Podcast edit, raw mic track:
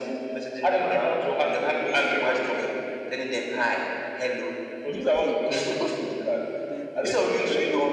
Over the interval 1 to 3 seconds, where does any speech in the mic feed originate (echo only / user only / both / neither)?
echo only